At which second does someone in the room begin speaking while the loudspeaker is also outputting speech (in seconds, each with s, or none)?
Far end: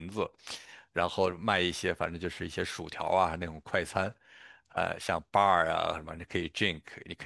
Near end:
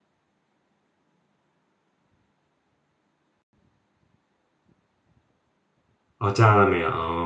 6.2 s